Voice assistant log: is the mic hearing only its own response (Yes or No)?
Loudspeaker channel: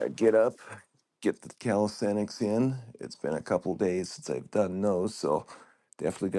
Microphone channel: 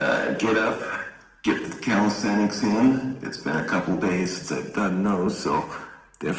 Yes